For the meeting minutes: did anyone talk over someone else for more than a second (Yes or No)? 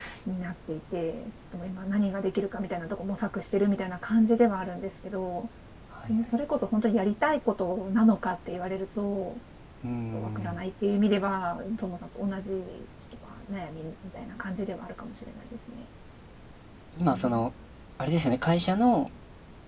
No